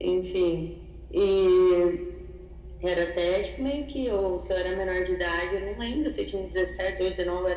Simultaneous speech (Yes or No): No